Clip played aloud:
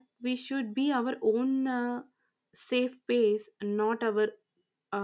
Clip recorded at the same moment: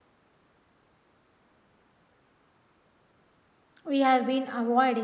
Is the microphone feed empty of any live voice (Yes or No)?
No